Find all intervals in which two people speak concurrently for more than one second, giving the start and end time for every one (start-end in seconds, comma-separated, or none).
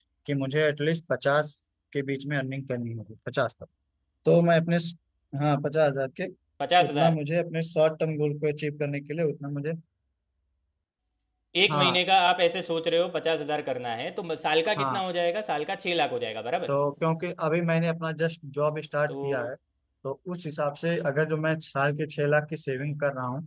none